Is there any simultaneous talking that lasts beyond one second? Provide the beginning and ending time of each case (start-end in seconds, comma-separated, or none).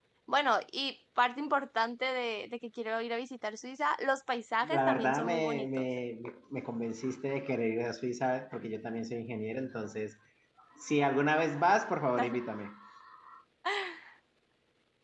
4.6-5.9